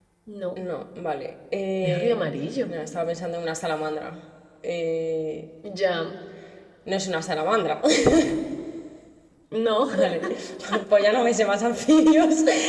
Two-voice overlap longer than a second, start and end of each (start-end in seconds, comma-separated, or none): none